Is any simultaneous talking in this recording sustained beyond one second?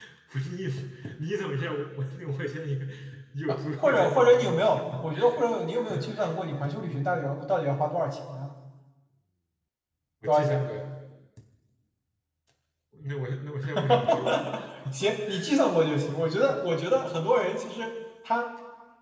Yes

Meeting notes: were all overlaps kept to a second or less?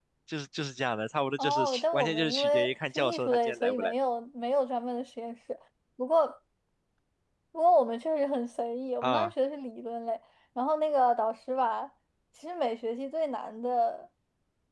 No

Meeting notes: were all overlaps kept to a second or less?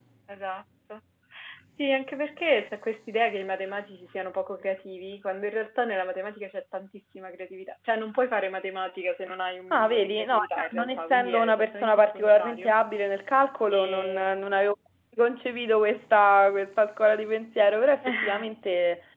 No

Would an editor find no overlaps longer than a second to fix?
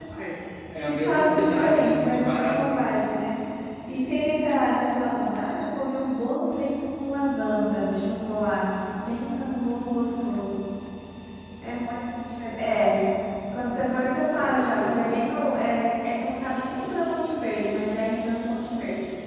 No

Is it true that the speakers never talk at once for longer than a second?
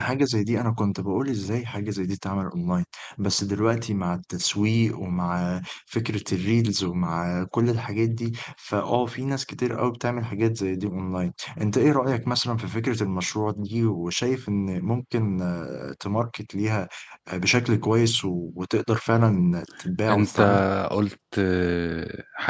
Yes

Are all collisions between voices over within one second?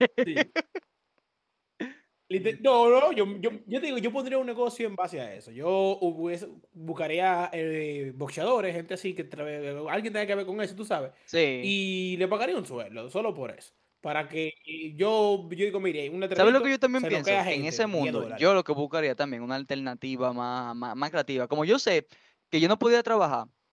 No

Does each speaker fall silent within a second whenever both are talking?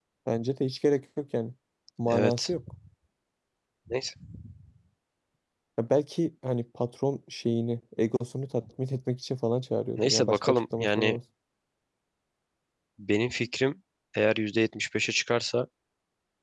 No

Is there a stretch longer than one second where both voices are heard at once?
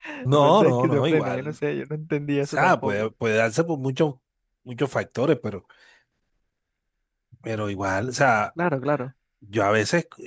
Yes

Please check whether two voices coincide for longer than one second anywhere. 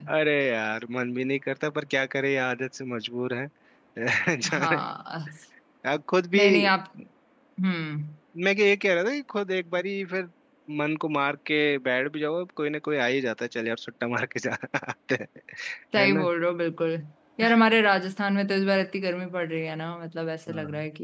No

